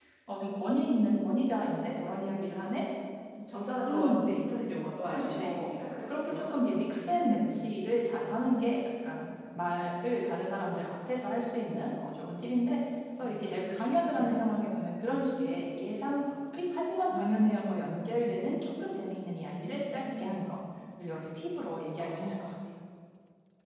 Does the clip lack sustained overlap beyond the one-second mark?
No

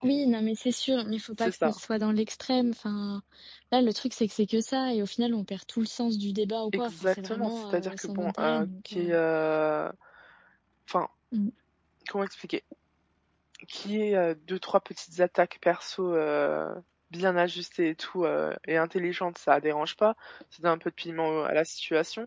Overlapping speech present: Yes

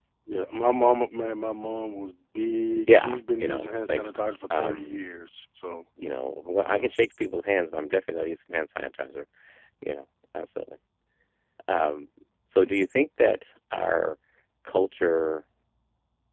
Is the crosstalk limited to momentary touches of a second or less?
No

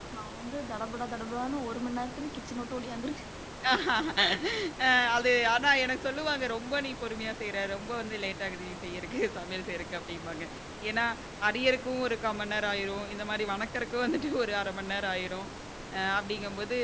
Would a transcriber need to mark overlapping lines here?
No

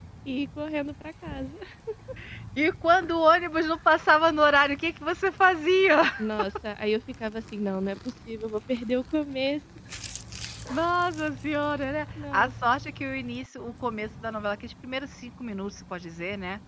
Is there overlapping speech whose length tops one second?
No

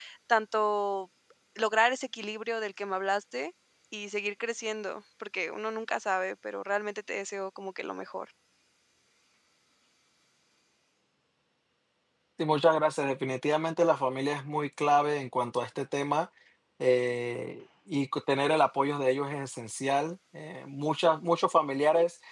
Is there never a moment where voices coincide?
Yes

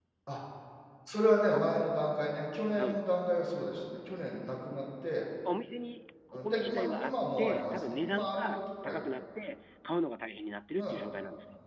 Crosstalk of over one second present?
Yes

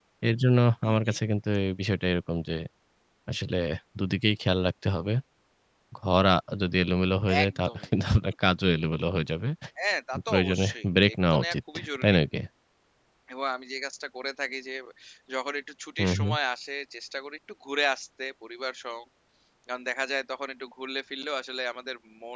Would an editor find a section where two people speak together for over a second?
Yes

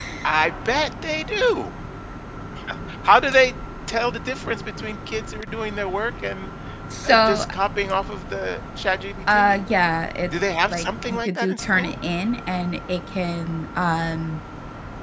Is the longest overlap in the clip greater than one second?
Yes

